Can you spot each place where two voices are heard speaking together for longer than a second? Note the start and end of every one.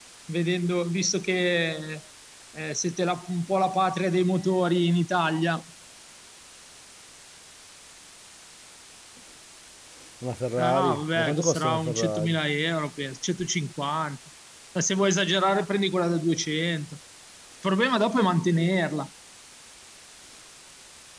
10.6-12.4

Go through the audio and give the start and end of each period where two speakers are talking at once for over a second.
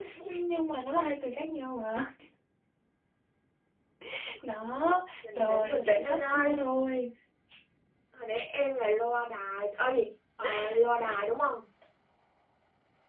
5.3-6.5

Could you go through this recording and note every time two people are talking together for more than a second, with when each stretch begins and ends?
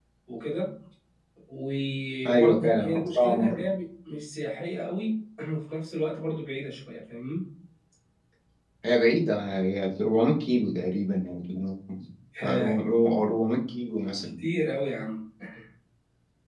2.3-3.7

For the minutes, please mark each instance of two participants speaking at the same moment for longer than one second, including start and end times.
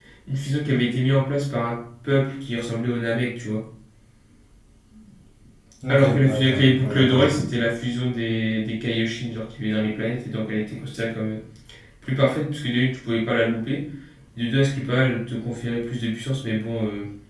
5.9-7.5

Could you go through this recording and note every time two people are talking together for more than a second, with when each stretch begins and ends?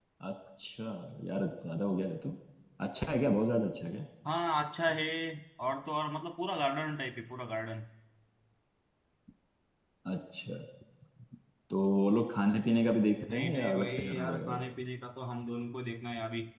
13.3-14.6

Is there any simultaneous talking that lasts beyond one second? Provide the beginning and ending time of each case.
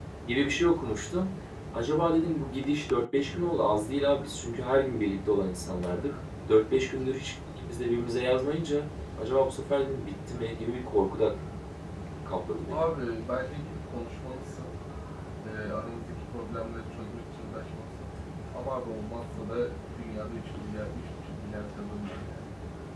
none

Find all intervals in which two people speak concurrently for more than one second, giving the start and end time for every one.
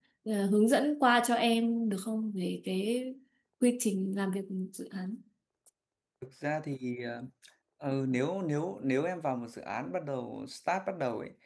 none

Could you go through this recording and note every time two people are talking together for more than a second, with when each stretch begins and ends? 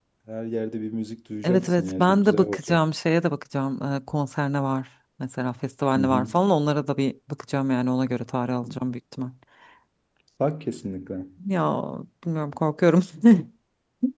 1.4-2.8

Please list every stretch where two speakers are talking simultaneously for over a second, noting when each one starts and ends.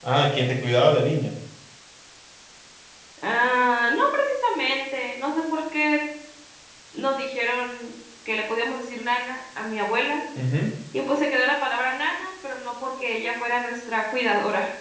none

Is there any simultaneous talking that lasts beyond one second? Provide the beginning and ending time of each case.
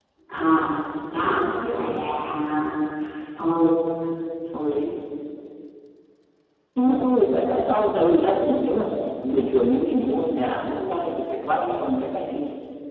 none

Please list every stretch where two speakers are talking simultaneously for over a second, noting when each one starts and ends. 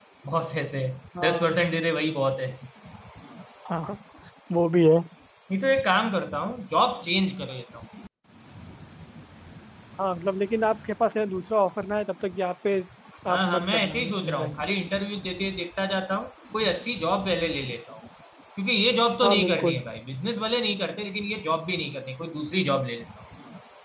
13.3-14.6

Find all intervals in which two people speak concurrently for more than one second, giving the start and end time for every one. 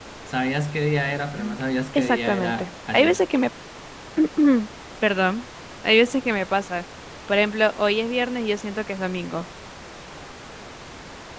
1.9-3.2

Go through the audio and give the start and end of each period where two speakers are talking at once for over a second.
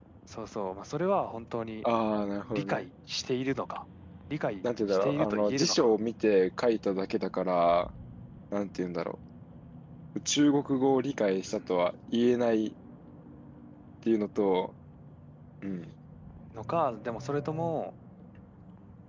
4.6-5.9

